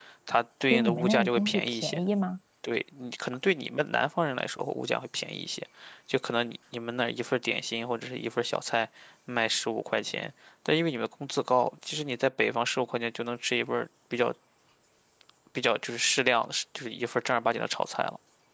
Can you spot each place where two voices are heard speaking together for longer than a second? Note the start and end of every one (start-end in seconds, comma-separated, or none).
0.7-2.0